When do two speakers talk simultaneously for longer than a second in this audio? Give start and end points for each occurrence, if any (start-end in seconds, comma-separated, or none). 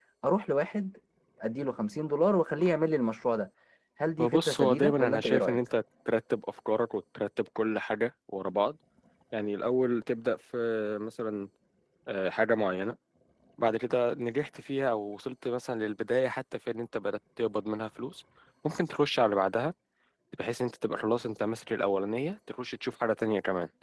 4.2-5.6